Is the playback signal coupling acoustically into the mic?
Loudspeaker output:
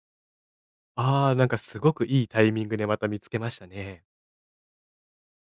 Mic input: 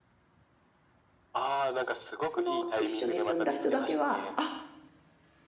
Yes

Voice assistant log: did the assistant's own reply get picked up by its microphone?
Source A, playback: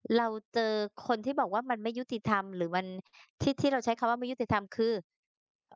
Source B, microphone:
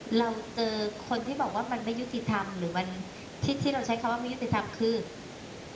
Yes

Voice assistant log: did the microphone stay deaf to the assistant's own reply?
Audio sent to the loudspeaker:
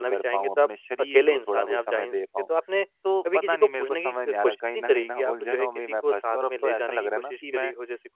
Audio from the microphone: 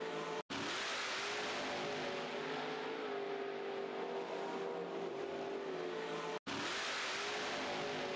Yes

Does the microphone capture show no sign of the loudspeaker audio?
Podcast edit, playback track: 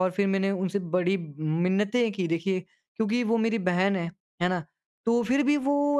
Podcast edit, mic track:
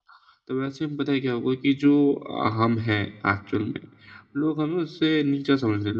Yes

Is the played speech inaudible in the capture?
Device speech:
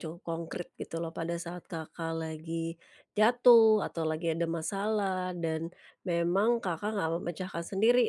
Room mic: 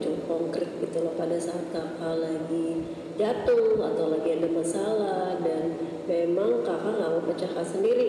No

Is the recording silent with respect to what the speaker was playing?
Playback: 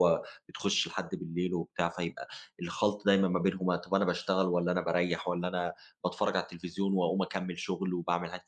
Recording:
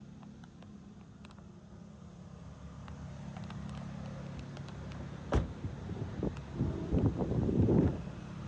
Yes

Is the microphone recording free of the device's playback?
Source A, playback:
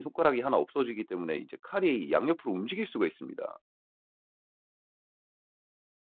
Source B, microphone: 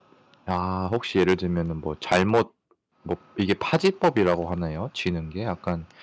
Yes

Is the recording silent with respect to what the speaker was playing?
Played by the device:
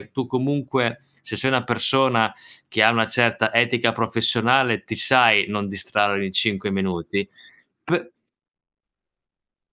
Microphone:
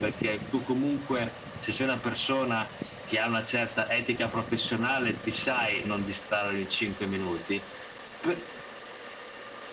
No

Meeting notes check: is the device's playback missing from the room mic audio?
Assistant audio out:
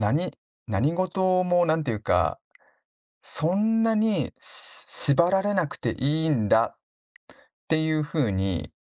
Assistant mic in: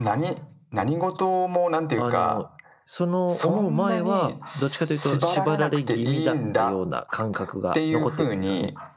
No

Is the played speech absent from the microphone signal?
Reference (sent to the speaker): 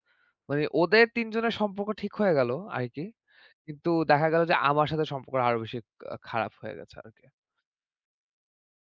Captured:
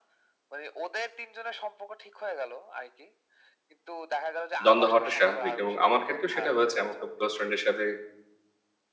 No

